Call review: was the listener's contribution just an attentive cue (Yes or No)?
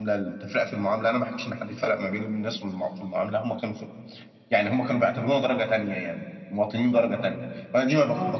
Yes